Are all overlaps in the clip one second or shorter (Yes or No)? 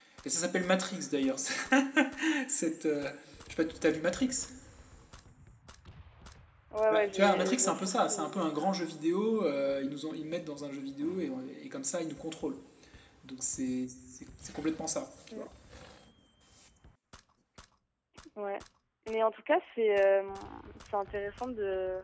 No